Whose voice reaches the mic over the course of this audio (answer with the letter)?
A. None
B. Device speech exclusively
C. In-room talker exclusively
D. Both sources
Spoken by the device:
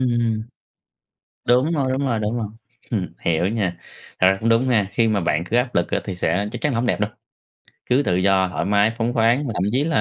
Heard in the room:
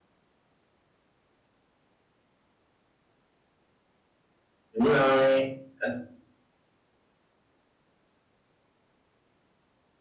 C